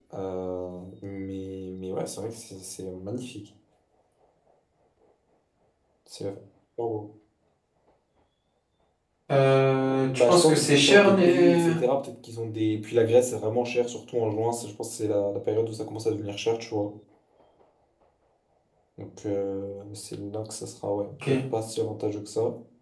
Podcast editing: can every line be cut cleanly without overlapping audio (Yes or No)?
No